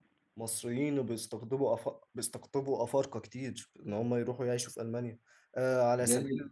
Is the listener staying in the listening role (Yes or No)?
Yes